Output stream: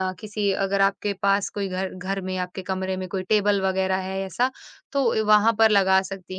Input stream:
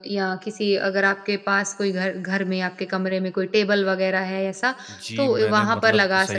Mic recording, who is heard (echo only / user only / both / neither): both